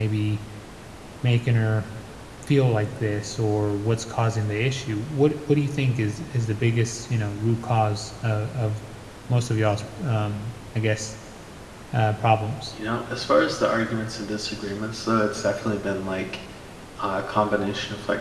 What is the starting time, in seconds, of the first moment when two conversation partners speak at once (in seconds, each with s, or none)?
none